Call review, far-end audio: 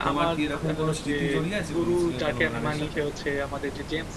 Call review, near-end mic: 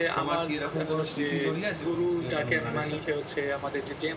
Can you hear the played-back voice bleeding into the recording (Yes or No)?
Yes